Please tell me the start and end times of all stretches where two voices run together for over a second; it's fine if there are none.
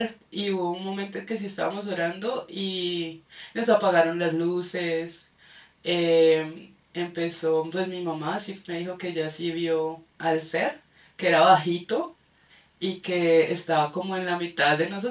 none

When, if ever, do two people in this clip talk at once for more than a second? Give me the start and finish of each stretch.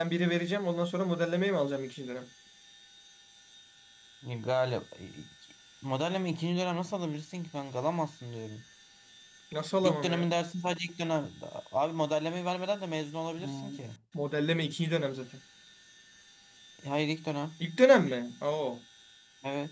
none

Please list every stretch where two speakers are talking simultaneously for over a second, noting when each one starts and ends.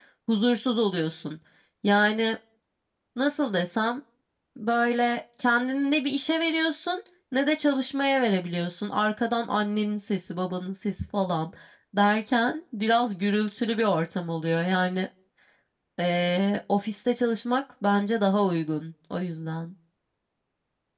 none

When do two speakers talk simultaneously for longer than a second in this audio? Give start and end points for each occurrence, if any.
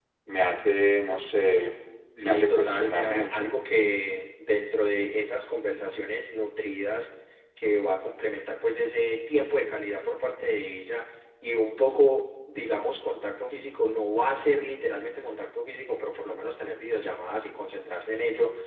2.2-3.6

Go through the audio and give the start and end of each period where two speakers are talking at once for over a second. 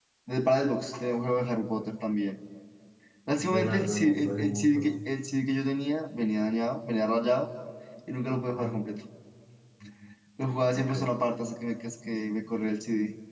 3.5-5.0

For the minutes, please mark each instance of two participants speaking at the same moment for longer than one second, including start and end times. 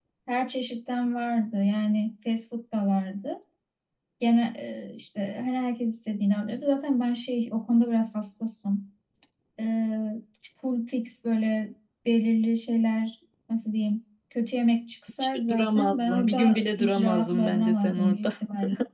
15.2-18.3

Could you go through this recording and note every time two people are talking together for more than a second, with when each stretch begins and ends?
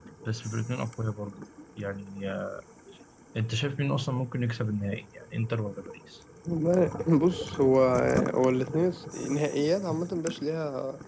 none

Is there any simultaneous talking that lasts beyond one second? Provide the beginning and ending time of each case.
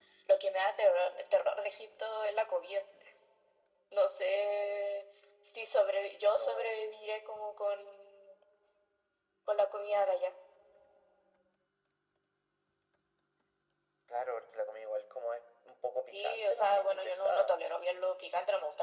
16.1-17.5

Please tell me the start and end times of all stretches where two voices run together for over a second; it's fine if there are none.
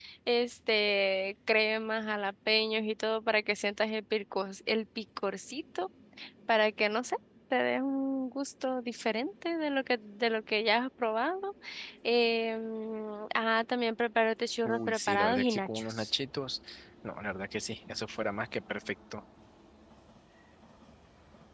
14.6-16.1

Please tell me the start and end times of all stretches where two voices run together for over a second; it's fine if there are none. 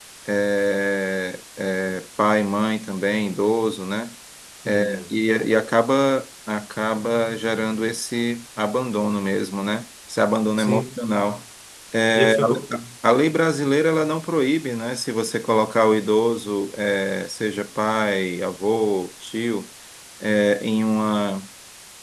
none

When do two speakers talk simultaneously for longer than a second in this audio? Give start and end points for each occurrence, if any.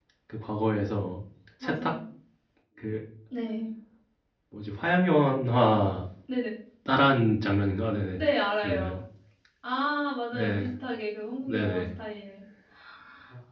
none

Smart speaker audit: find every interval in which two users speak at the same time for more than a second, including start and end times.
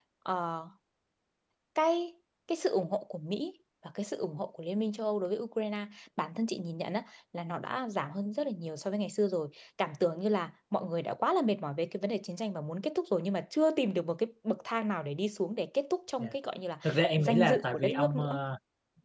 17.2-18.4

